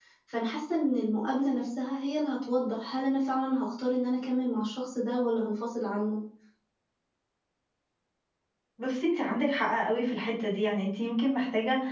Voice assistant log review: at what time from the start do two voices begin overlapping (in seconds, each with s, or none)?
none